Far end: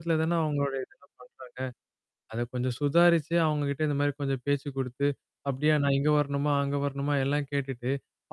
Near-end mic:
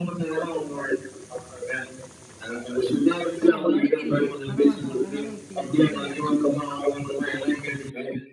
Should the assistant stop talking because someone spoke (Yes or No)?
Yes